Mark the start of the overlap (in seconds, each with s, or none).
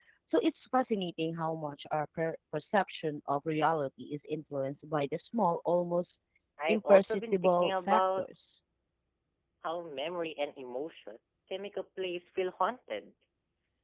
6.7 s